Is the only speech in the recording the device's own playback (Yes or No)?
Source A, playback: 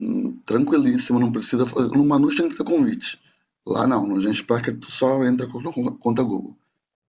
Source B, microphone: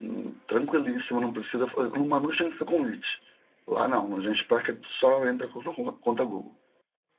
Yes